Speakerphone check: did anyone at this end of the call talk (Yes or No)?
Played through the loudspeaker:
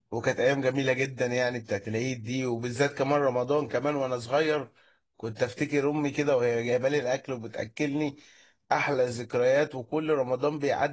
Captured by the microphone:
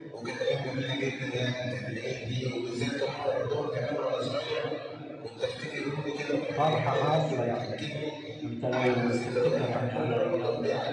Yes